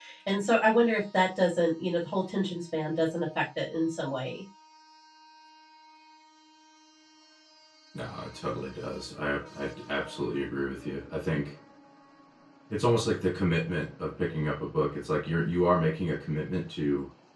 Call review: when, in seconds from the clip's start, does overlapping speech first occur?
none

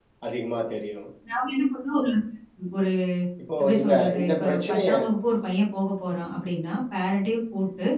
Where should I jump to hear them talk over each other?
3.6 s

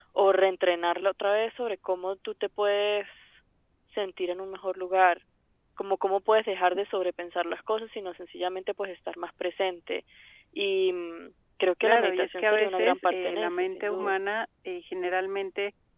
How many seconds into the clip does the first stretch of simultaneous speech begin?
11.8 s

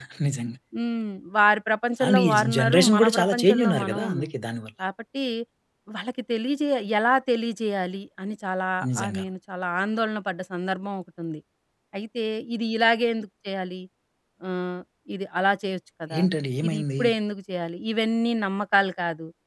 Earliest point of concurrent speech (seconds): 2.1 s

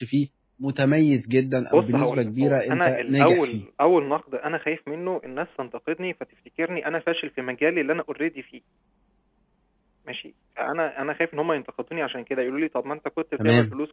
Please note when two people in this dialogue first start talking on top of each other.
1.7 s

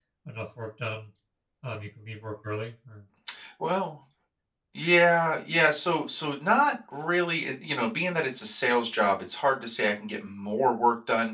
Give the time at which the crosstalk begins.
none

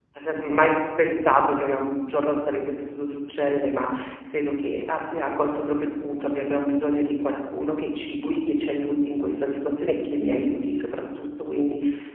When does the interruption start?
none

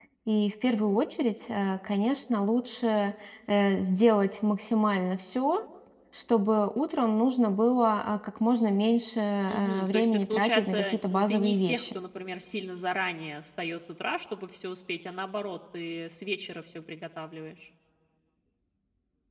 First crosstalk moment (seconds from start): 9.5 s

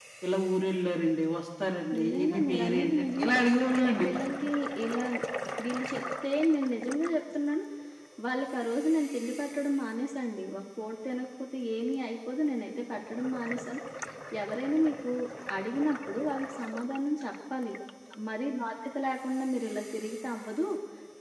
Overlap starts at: 2.0 s

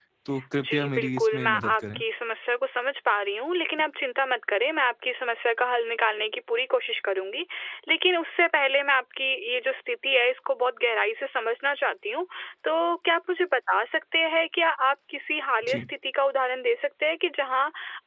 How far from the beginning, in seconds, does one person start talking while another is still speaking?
0.6 s

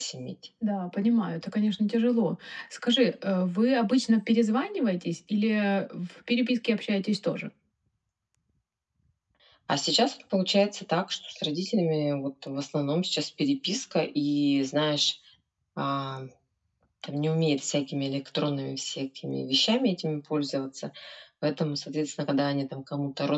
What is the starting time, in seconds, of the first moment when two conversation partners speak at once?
none

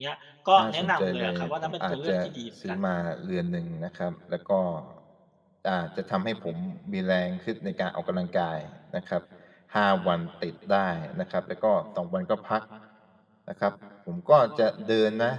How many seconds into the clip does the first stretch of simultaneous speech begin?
0.6 s

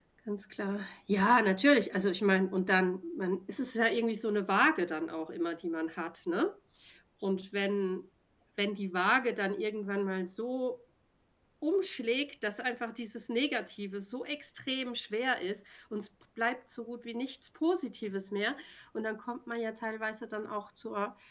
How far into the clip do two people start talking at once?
none

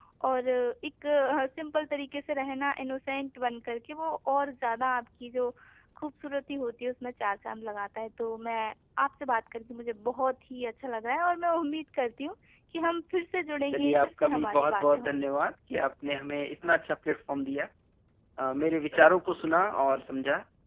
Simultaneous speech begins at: 13.7 s

